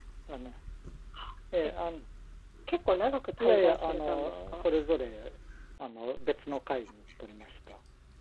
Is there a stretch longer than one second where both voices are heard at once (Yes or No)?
Yes